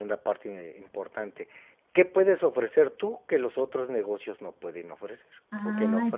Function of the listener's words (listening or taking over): taking over